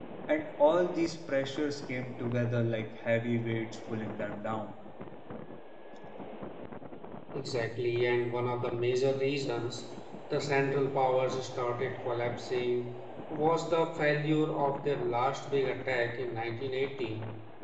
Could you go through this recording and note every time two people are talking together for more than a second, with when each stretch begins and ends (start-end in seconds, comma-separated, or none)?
none